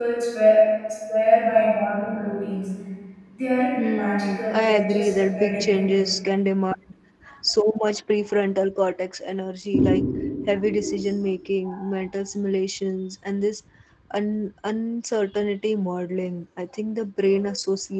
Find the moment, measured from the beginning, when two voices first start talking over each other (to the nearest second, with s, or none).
4 s